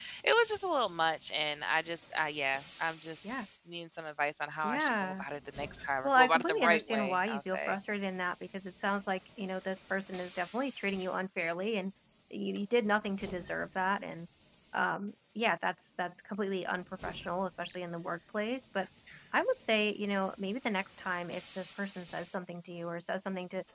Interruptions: present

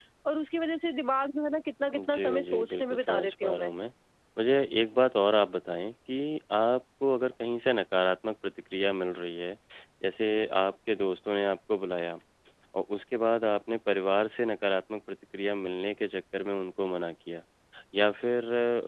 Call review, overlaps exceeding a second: present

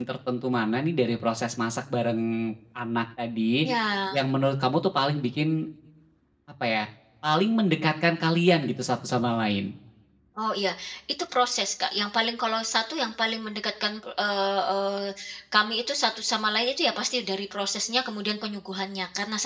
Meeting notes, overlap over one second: none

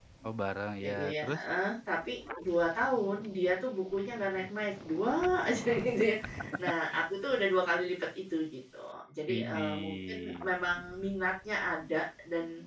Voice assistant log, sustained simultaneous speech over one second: present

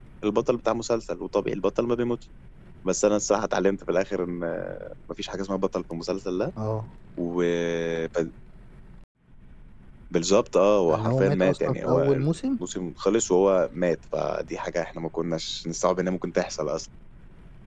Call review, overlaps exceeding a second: present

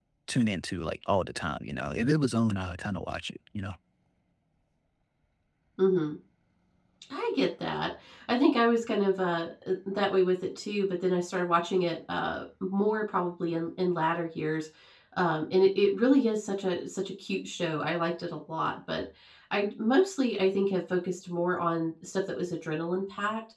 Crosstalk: none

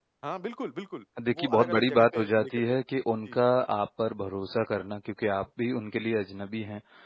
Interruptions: present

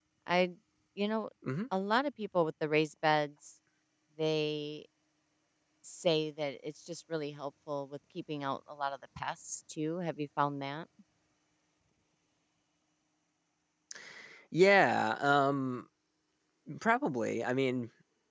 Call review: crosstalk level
none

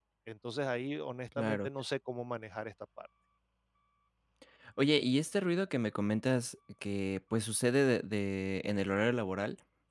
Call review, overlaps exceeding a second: none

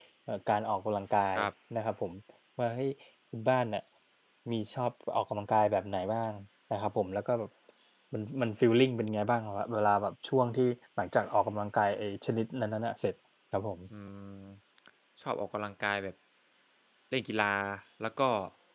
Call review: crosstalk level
none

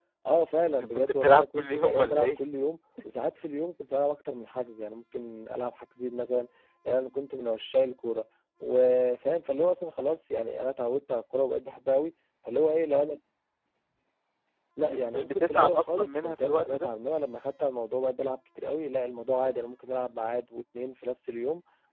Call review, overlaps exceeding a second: present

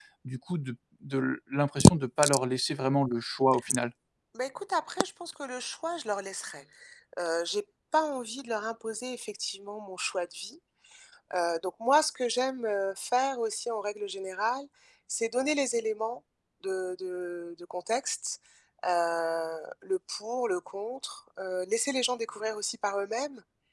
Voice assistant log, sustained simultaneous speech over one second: none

